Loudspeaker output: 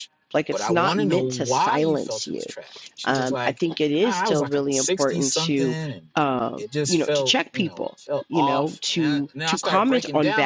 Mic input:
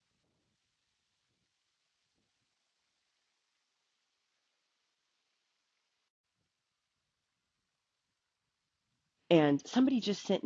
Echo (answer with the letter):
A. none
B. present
A